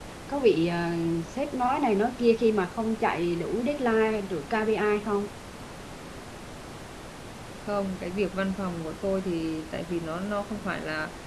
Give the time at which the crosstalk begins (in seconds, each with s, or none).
none